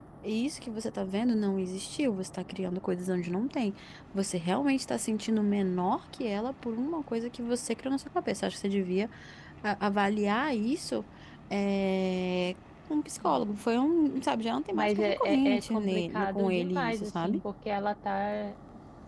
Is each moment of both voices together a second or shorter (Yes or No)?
No